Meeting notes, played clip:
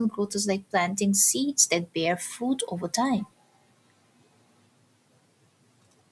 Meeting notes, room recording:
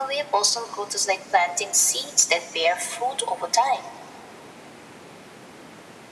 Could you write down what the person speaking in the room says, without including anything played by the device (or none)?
none